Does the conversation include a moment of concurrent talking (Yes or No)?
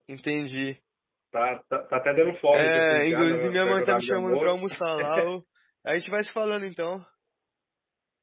Yes